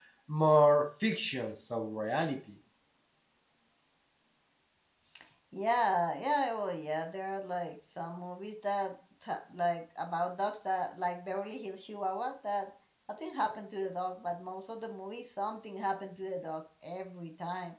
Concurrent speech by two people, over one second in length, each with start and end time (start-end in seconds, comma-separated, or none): none